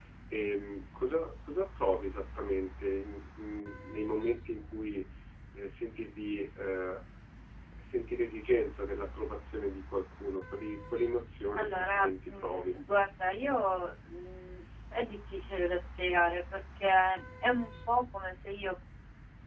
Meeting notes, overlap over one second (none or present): present